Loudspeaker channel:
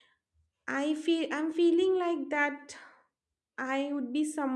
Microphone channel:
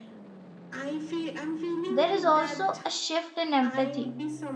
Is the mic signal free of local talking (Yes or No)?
No